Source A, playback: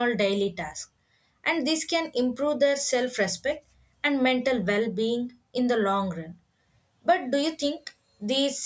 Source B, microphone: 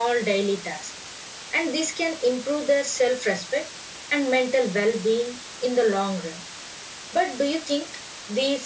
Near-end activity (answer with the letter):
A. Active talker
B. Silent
B